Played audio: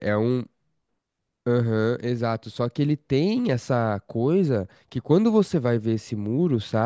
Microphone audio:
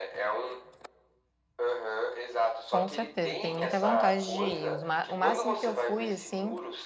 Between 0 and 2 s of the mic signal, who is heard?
echo only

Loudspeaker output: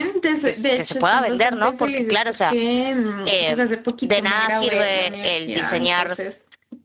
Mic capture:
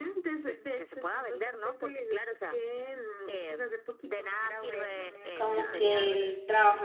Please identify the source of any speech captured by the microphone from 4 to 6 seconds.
both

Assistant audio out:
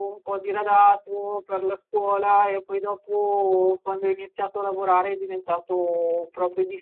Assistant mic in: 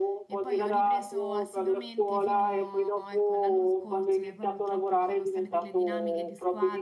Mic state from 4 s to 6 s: both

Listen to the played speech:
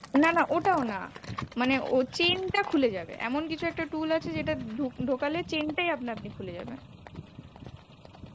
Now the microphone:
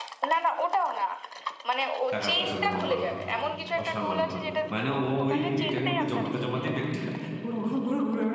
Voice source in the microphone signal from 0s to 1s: echo only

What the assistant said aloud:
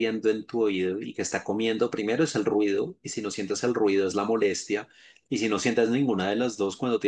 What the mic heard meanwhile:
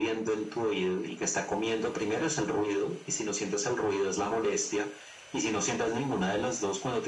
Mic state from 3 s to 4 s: echo only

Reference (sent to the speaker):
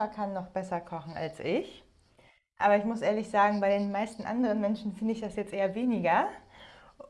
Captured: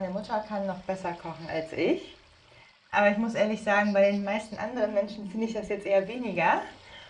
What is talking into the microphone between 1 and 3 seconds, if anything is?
echo only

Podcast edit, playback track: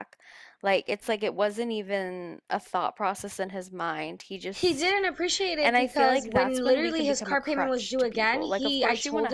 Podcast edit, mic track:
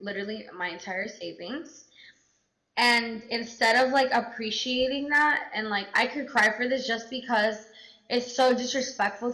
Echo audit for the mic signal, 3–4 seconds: user only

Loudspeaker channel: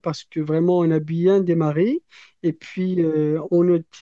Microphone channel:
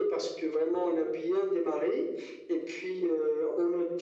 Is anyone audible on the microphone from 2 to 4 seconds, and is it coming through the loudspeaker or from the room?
echo only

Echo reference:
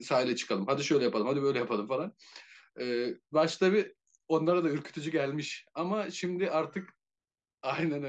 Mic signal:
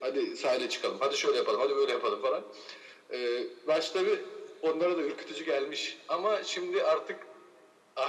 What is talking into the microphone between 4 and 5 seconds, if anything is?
echo only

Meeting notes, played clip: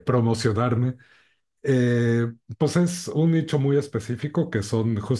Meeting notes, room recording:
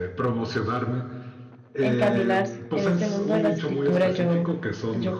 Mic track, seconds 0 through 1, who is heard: echo only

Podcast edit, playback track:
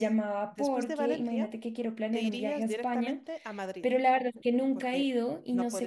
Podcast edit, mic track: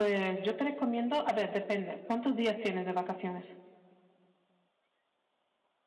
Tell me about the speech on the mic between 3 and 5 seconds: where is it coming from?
user only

